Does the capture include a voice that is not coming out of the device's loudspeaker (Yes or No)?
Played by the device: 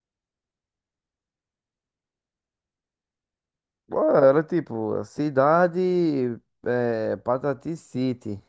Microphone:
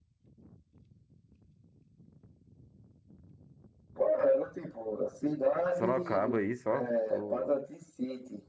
Yes